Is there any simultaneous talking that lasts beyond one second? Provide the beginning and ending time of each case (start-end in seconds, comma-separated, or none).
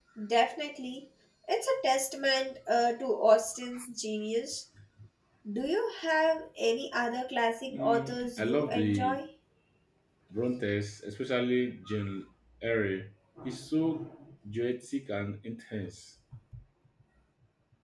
7.7-9.2